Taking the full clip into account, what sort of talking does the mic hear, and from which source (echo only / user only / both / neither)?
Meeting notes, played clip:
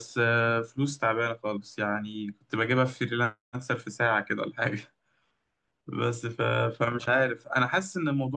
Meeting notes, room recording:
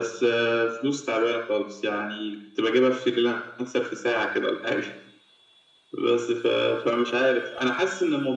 echo only